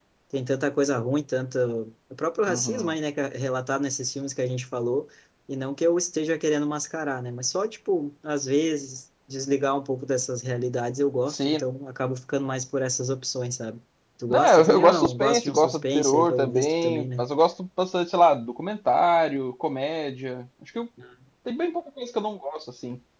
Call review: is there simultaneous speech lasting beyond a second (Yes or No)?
Yes